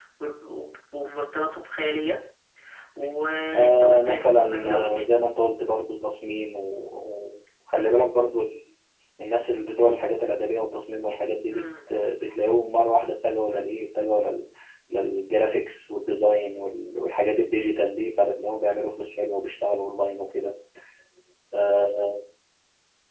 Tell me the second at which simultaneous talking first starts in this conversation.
3.5 s

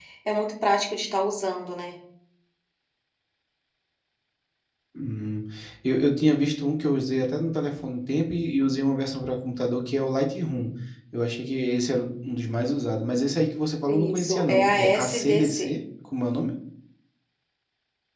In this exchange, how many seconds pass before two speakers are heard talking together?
13.9 s

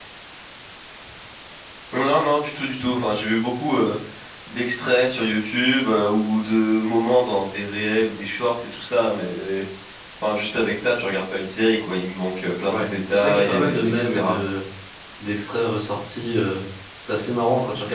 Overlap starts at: 12.7 s

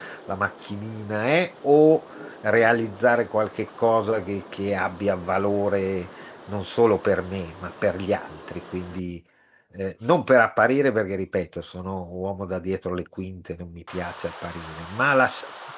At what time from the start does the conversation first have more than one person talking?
none

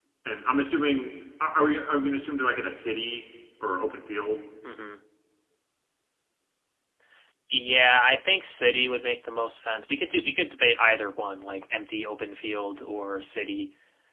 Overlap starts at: none

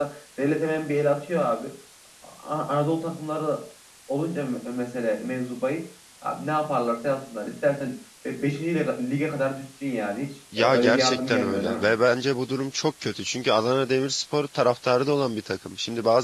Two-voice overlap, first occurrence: 10.5 s

